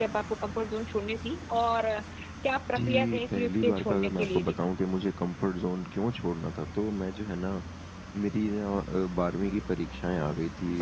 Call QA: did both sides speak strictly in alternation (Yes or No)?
No